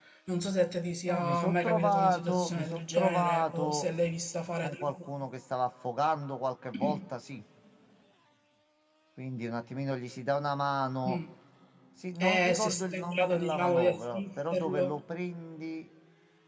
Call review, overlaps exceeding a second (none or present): present